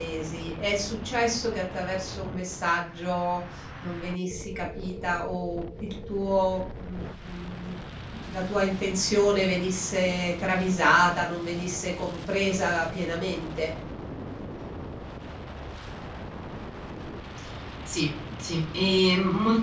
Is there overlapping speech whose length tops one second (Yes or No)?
No